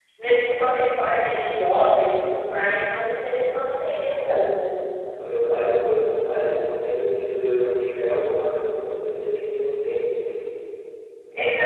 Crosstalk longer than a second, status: none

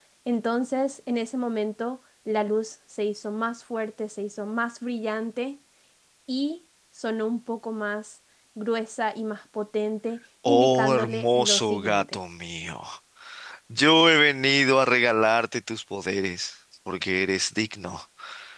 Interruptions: present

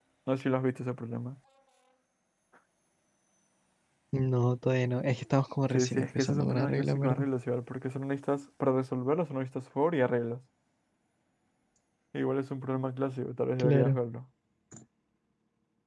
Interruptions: present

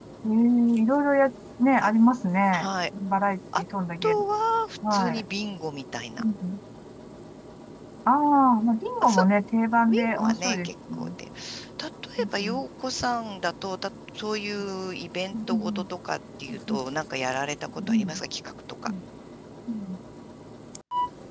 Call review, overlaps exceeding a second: present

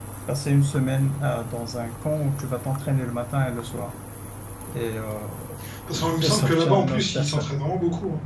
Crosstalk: present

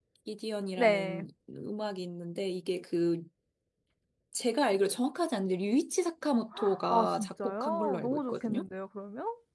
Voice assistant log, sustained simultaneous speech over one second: present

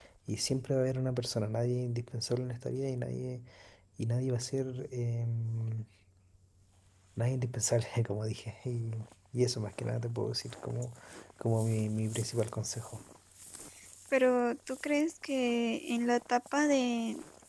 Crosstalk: none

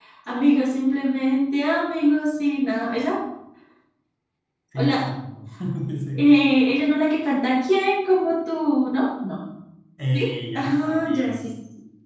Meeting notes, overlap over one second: present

